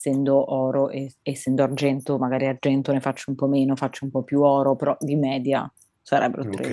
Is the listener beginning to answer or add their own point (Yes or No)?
Yes